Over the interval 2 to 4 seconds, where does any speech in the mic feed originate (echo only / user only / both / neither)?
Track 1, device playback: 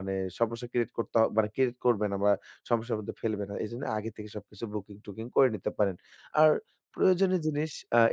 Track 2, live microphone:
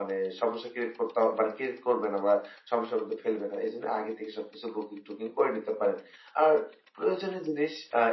echo only